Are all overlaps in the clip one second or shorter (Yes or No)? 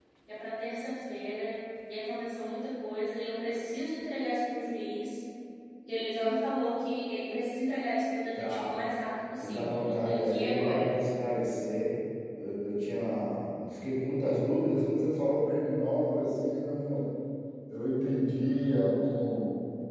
No